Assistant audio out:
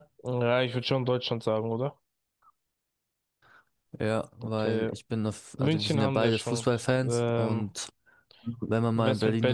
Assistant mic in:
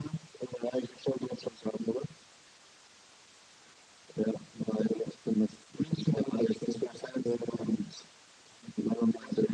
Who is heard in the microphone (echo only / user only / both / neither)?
echo only